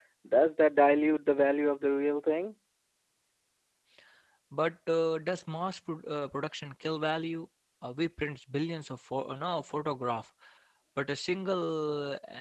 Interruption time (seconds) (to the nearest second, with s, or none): none